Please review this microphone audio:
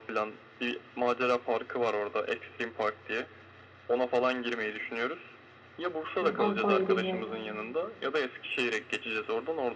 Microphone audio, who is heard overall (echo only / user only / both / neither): both